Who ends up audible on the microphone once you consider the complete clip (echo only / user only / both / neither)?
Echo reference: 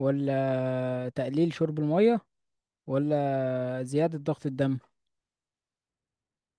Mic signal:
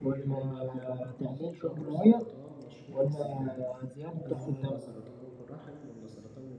both